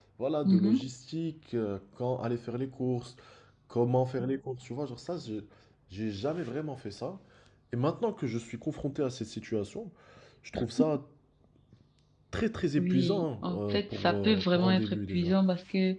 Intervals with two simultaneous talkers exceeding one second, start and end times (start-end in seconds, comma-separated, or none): 12.8-15.4